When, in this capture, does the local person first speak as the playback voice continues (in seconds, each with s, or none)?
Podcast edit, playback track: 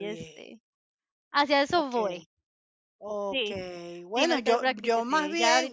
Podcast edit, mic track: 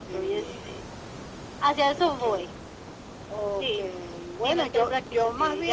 none